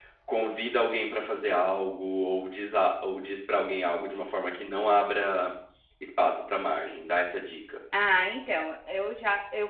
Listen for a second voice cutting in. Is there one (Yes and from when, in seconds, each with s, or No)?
No